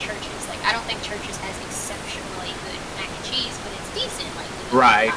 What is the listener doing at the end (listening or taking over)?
taking over